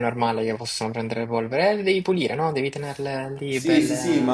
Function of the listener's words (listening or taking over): taking over